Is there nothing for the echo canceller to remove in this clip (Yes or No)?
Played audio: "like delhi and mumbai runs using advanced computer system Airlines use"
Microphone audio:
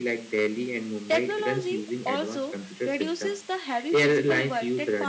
No